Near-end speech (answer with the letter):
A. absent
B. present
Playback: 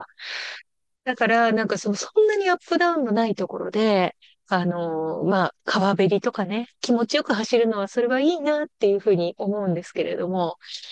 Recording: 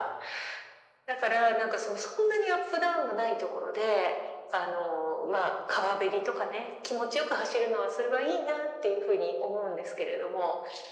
A